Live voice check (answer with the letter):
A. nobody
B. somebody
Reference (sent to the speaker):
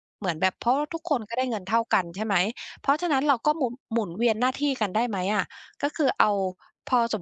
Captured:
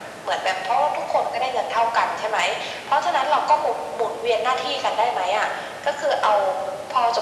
A